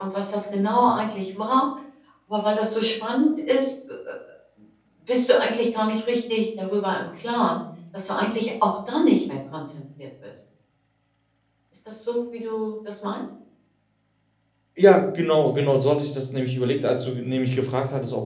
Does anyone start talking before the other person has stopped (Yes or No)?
No